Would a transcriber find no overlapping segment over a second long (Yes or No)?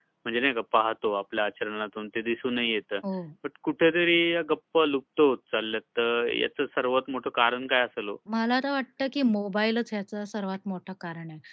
Yes